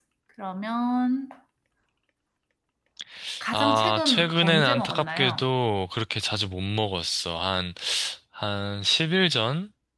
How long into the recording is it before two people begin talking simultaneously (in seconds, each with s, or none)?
3.5 s